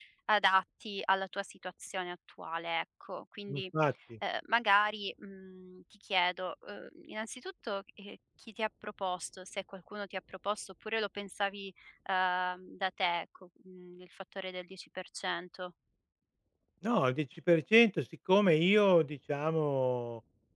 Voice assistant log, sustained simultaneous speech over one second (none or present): none